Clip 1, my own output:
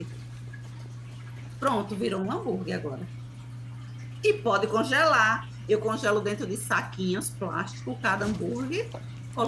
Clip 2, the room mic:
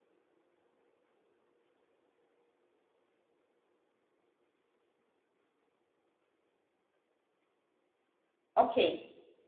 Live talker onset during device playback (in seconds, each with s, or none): 8.5 s